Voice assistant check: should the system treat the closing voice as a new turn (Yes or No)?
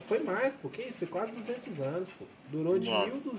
No